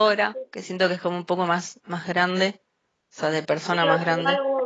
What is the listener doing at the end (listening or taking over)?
taking over